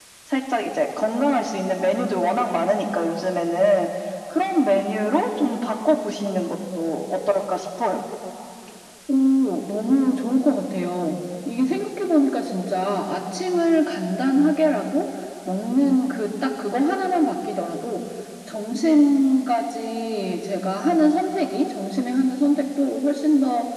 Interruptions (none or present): none